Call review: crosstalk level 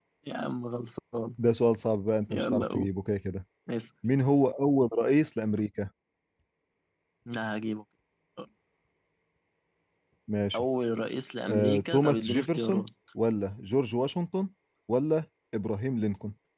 present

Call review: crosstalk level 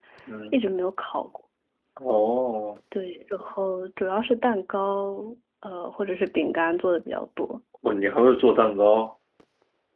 none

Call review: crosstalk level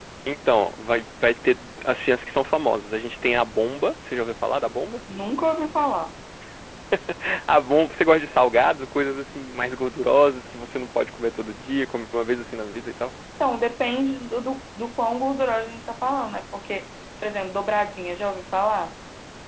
none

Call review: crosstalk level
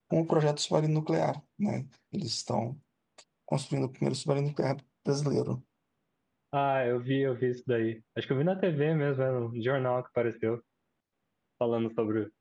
none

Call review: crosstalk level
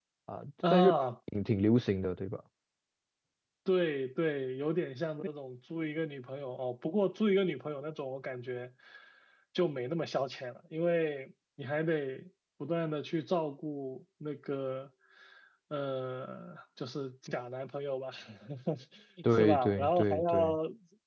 present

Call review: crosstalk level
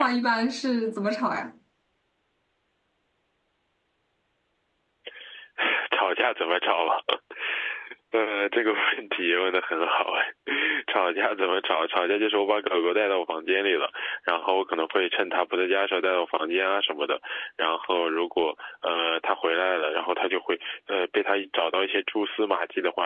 none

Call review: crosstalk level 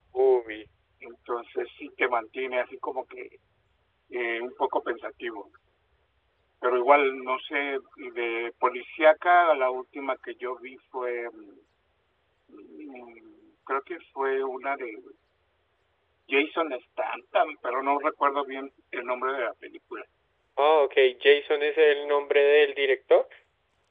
none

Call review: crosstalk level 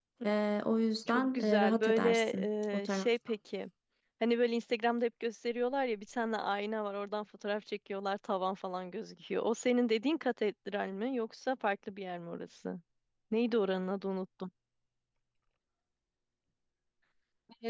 present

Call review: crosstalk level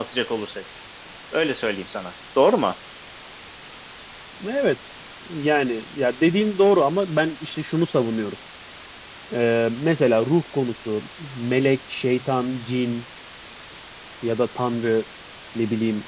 none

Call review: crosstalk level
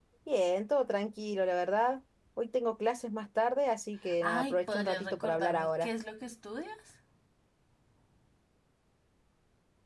present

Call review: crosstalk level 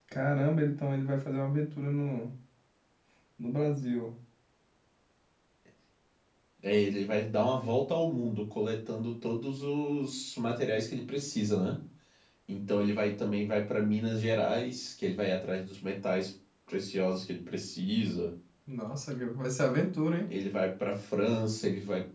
none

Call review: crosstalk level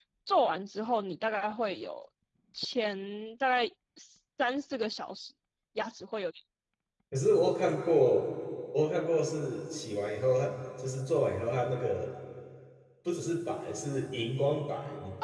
none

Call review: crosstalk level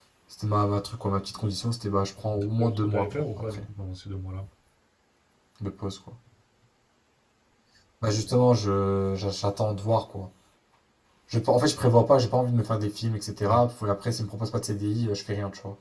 present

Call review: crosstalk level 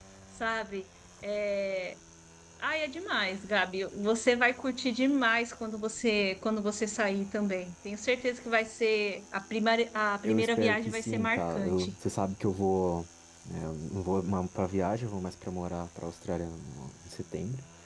present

